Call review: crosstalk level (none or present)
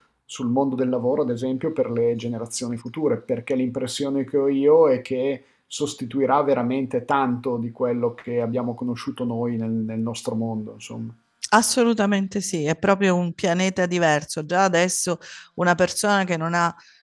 none